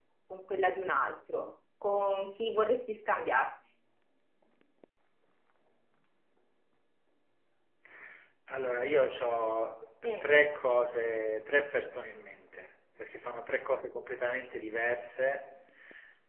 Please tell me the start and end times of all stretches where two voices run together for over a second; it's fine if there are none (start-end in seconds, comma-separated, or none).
none